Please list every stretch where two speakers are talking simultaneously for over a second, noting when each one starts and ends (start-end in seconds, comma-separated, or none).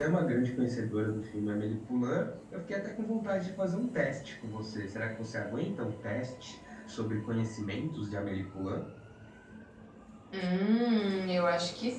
none